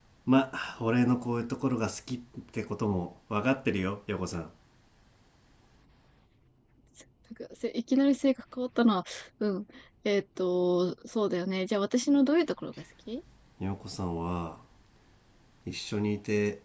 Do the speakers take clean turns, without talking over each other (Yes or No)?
Yes